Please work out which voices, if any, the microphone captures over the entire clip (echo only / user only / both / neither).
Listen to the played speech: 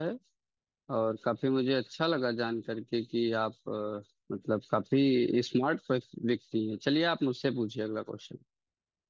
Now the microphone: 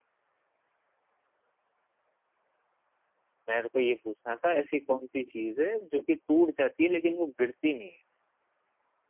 user only